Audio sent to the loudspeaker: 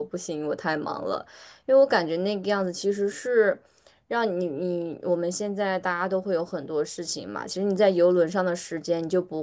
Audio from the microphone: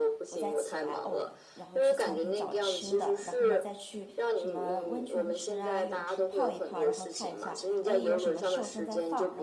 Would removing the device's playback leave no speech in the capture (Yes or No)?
No